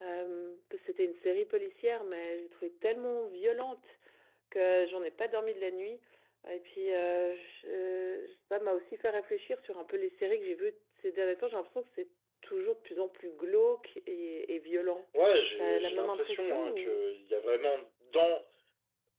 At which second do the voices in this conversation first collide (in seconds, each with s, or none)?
15.6 s